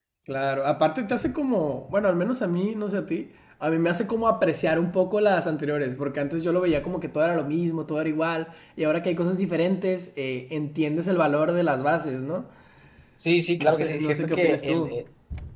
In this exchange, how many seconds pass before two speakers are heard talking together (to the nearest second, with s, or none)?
14 s